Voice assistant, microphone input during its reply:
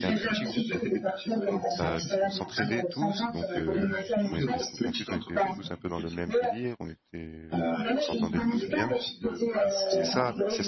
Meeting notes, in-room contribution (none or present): present